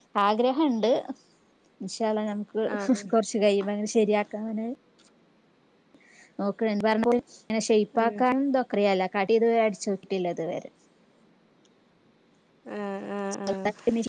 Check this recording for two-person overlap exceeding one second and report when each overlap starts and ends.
none

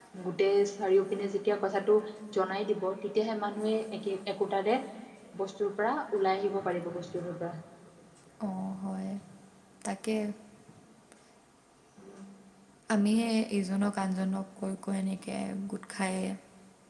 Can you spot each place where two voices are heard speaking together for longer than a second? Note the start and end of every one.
none

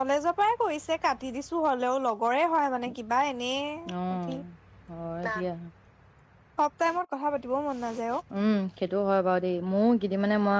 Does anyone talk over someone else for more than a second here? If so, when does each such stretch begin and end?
none

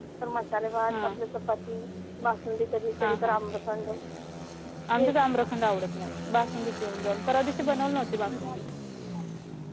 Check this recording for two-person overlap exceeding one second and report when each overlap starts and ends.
none

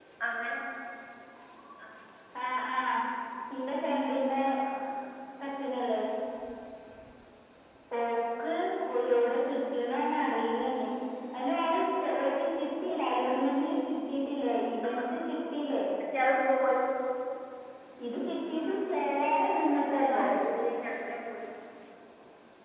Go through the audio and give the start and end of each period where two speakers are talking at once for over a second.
18.6-20.3

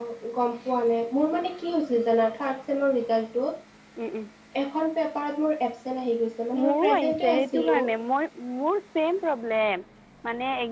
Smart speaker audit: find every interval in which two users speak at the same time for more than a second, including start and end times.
6.6-7.8

